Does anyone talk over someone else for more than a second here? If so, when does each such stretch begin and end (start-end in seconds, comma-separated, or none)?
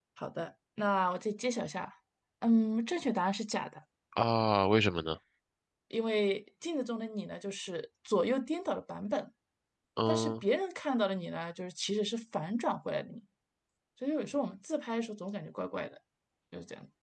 none